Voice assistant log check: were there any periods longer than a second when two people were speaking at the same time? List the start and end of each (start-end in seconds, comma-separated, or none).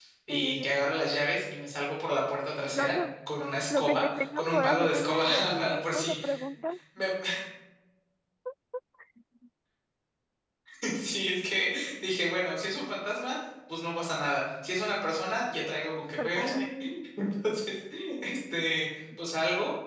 3.8-6.2